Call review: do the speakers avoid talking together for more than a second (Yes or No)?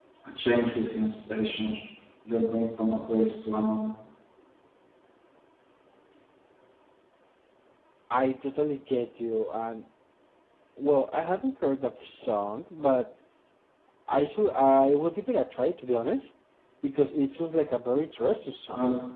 Yes